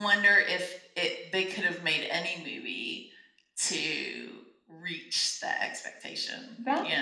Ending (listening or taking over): taking over